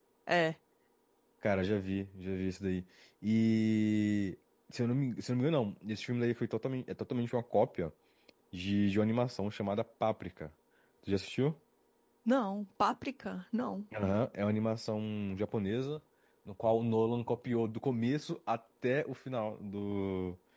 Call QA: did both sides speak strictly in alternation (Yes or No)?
Yes